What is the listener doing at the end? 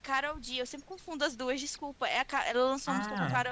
listening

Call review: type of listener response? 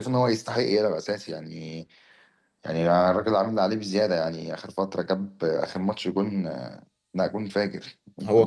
taking over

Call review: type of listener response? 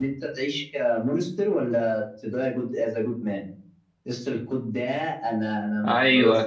listening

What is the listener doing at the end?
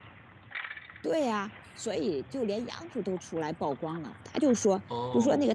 listening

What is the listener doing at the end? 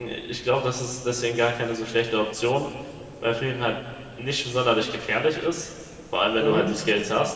listening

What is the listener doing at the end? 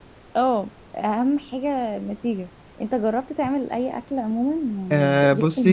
taking over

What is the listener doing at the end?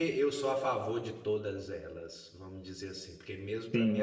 listening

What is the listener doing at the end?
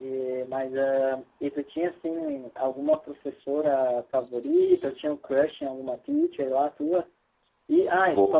listening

